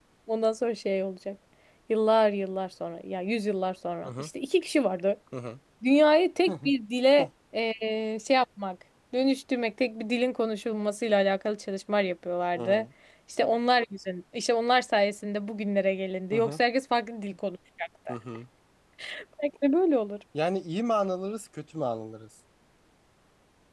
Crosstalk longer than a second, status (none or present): none